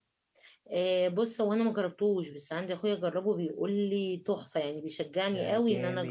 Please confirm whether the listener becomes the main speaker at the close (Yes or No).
Yes